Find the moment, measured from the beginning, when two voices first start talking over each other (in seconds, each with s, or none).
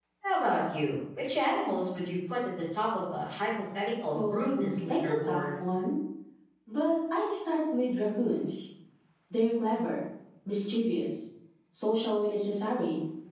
4.1 s